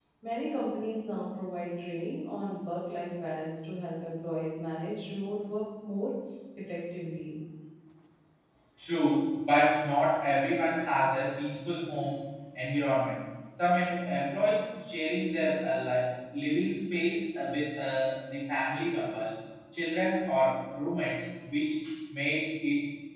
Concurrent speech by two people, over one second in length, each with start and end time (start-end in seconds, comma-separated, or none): none